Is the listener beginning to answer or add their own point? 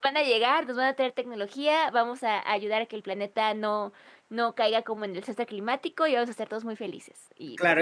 Yes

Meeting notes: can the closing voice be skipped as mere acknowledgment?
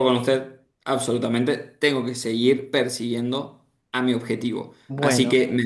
Yes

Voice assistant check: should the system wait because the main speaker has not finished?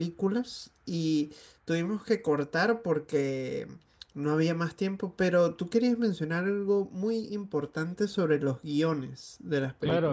No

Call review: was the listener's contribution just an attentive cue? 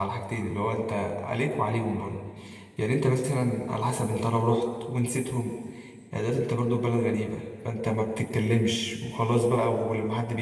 Yes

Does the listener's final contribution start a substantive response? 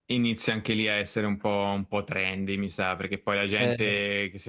No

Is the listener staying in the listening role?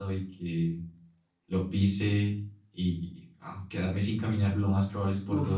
Yes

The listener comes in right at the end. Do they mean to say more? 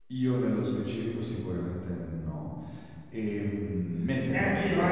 Yes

